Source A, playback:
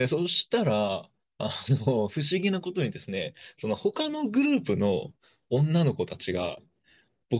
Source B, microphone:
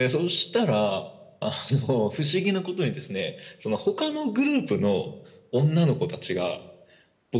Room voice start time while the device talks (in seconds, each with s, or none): none